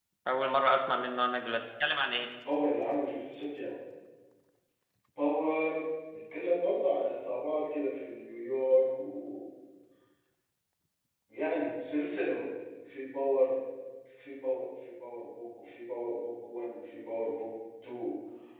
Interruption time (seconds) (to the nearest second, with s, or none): none